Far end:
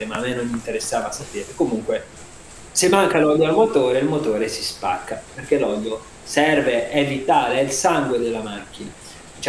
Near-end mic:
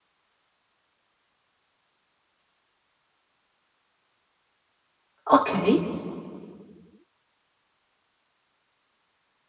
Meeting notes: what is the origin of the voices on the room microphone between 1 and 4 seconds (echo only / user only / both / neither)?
neither